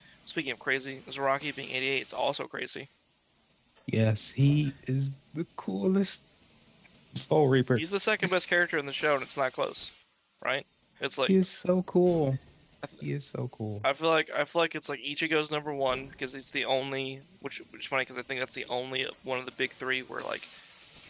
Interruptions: none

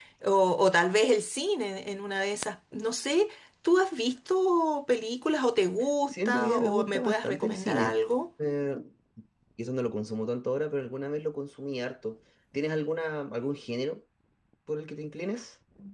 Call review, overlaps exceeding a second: present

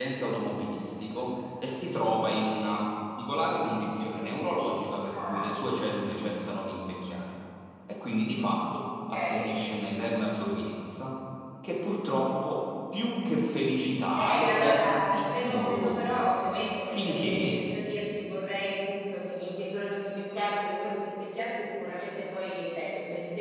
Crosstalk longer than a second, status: present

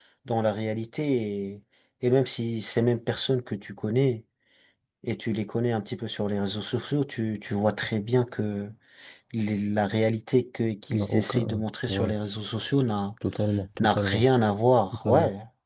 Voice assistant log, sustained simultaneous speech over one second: present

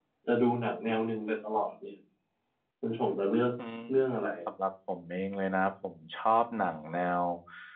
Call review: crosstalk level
none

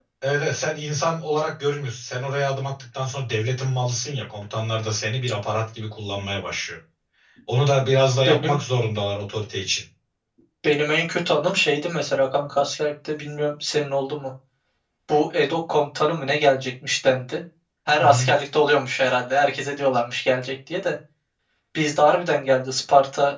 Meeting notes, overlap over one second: none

